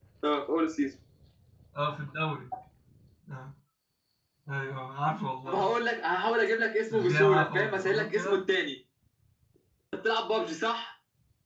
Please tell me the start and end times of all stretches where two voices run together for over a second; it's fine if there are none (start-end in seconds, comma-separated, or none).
6.9-8.4